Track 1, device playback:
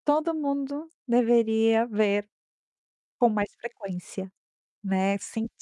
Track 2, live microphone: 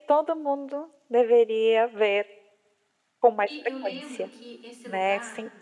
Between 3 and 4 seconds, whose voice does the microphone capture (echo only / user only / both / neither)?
both